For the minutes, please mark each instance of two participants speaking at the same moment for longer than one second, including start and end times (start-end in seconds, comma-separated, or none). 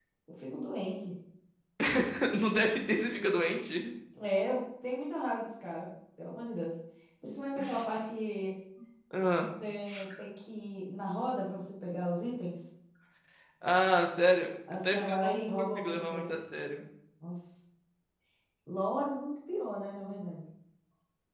14.9-16.4